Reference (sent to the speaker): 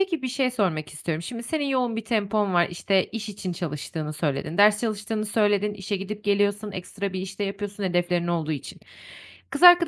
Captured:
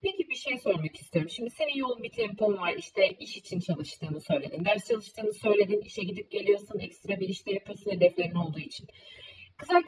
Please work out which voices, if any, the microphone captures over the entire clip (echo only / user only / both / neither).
echo only